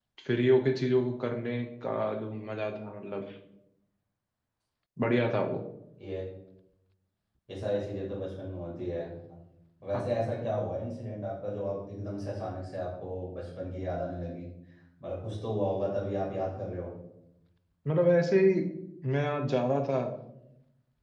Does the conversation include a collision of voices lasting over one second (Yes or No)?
No